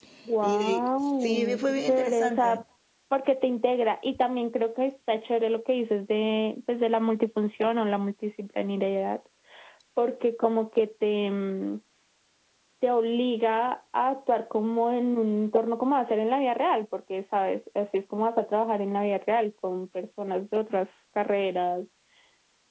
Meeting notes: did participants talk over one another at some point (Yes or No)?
Yes